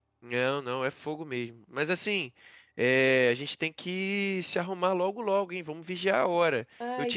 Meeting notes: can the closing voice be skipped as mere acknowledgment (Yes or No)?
Yes